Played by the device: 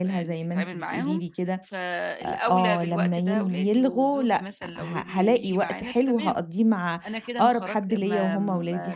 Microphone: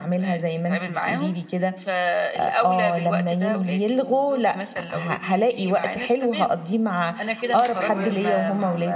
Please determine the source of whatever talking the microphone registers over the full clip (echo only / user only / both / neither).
both